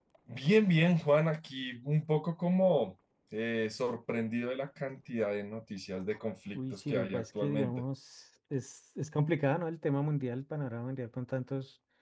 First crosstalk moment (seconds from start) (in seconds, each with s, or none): 6.5 s